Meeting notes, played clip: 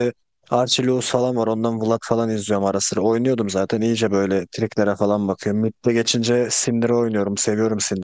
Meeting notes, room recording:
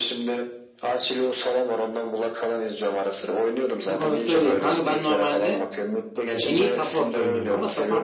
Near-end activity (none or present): present